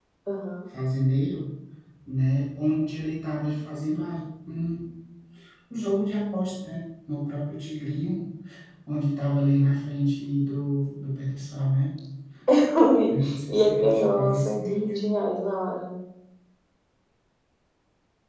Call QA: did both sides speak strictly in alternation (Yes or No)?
No